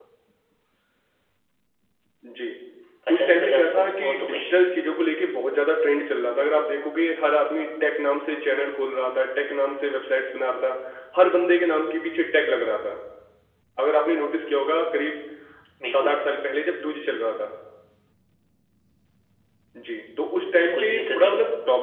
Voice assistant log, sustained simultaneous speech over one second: present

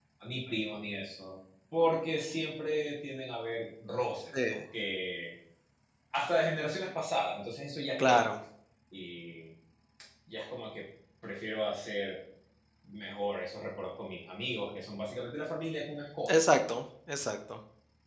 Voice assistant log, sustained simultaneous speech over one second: none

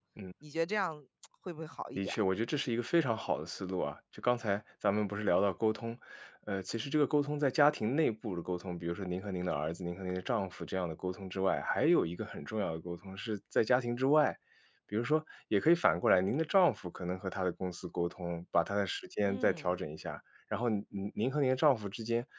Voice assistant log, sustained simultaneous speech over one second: none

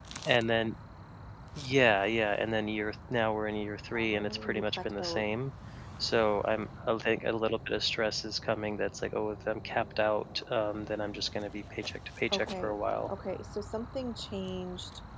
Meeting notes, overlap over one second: present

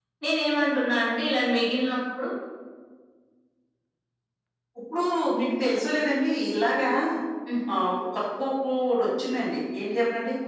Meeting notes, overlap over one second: none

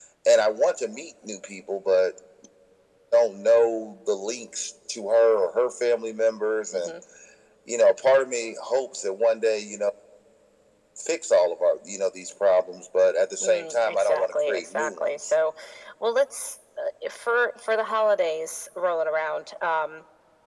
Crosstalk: present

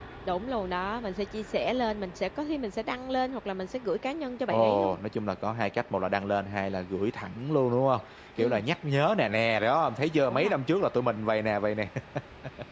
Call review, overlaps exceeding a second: none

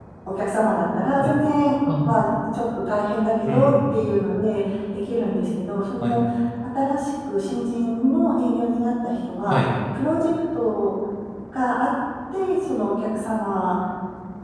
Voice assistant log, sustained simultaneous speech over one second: none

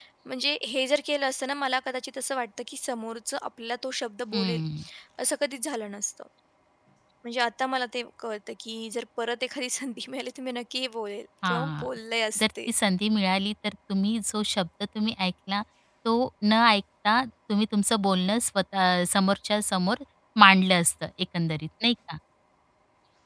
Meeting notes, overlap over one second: none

